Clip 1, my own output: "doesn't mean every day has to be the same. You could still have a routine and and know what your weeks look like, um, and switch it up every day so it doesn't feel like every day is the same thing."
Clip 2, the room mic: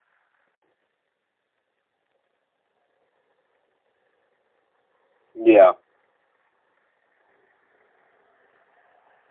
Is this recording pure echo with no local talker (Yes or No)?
No